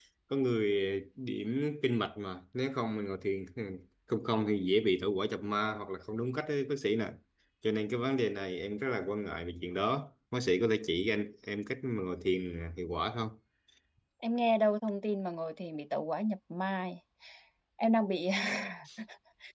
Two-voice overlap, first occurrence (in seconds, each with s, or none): none